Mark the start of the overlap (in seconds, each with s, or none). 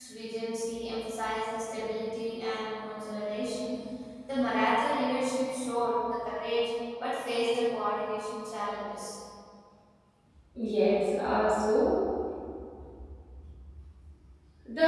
none